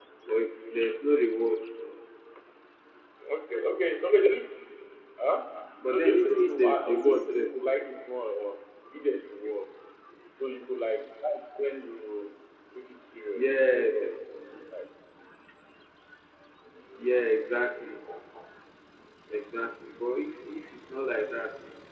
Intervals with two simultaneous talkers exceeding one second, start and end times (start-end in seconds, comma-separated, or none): 5.9-7.5